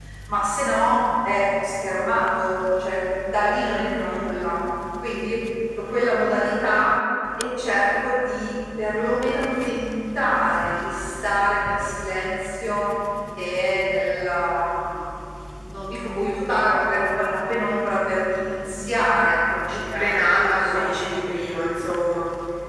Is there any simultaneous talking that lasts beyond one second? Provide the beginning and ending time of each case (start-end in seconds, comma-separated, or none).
19.7-21.2